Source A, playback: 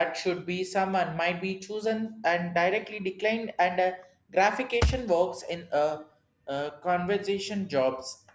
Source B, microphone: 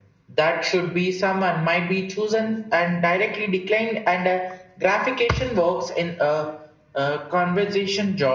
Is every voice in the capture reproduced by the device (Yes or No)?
Yes